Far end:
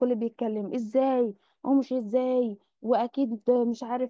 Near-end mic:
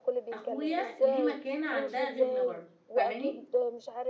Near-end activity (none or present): present